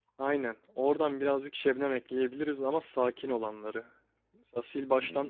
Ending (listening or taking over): listening